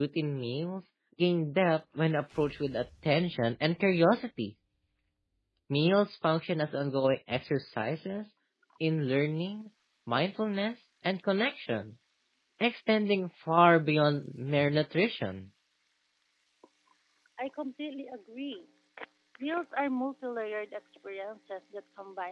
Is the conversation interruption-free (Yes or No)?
Yes